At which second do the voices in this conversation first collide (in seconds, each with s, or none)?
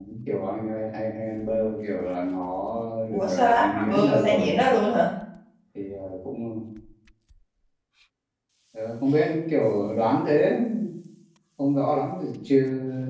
3.1 s